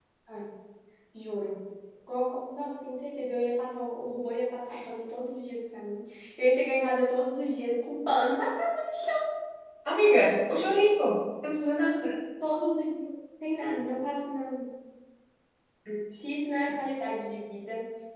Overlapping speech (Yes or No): No